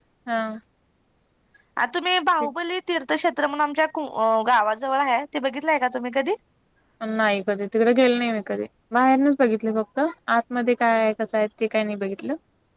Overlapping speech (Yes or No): No